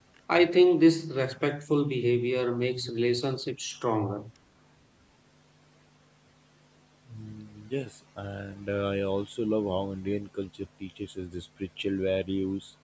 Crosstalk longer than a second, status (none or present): none